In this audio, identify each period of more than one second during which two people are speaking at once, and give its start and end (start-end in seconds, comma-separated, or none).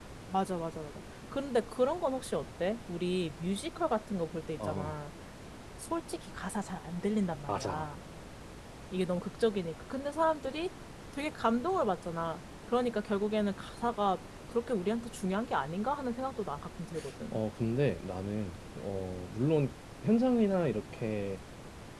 none